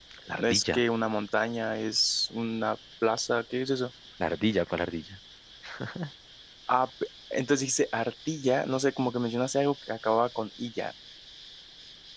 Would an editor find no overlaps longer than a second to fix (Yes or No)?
Yes